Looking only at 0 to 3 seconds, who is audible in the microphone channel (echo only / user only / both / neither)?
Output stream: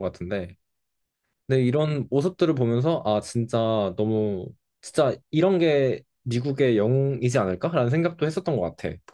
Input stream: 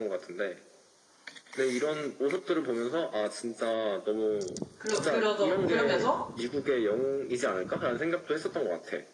echo only